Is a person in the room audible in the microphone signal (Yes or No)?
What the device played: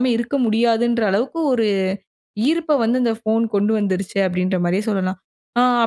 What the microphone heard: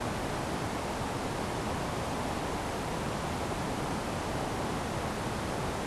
No